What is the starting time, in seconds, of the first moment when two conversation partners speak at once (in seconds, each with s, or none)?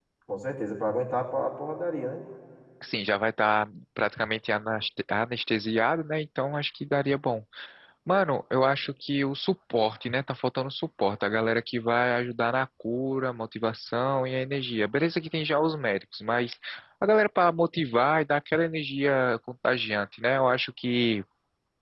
none